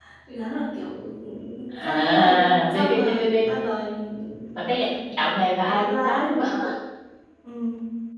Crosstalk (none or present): present